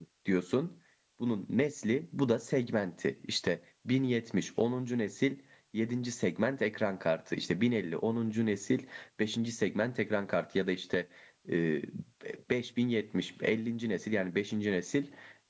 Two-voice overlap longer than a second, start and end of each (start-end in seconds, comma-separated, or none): none